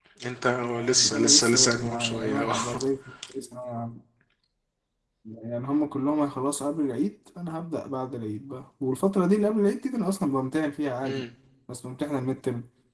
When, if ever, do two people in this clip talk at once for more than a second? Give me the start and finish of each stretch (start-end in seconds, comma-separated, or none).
0.8-2.5